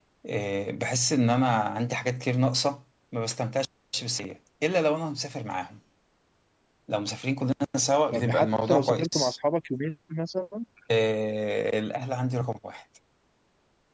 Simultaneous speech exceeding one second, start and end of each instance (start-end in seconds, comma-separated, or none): 8.1-9.3